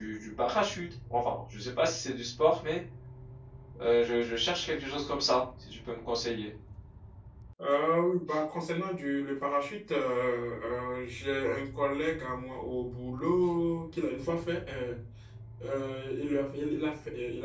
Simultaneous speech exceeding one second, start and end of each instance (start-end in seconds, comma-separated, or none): none